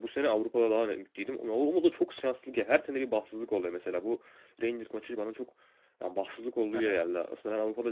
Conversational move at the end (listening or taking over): listening